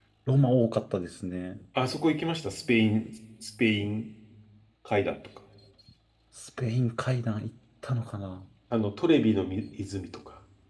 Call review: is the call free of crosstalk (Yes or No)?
Yes